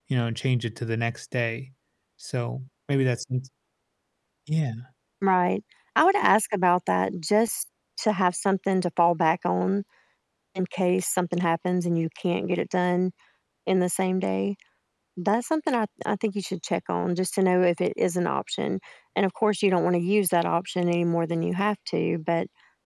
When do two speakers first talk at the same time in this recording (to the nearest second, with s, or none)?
none